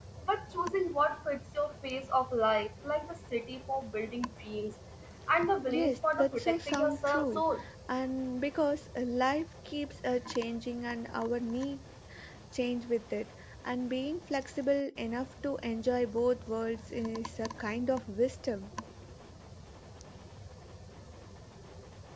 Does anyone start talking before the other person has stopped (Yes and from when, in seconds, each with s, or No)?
Yes, from 5.7 s